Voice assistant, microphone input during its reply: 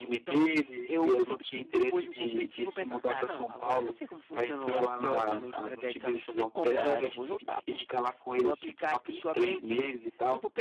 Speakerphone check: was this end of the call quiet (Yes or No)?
No